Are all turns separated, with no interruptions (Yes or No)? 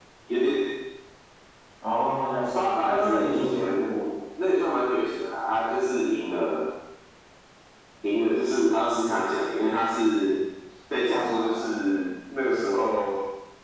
No